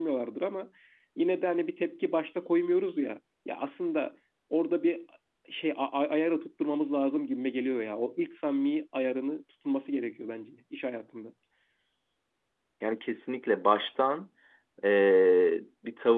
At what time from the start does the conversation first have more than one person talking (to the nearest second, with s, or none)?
none